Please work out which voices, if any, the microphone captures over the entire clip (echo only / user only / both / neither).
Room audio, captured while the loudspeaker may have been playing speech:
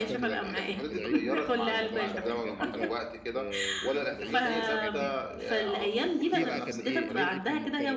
both